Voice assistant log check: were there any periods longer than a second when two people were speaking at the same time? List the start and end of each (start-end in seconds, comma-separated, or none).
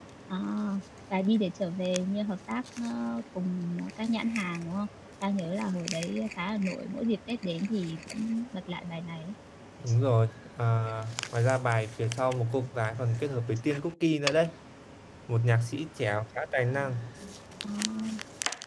none